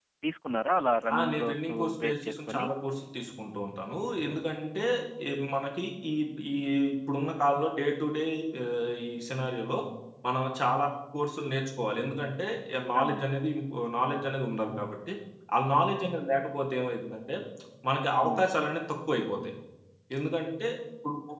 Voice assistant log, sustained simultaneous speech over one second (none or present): present